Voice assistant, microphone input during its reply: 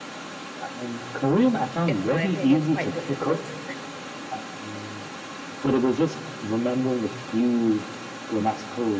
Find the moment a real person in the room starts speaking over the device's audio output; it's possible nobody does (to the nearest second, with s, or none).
2 s